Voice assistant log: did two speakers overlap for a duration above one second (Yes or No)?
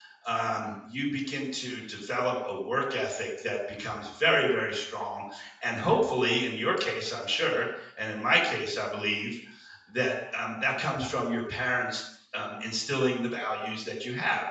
No